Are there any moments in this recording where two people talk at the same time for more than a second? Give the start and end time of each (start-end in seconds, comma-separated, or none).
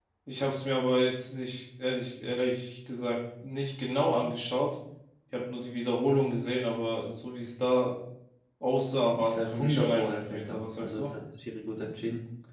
9.2-11.1